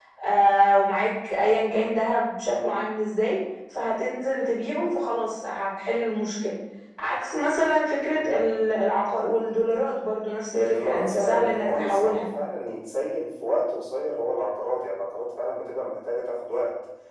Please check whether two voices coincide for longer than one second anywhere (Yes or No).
Yes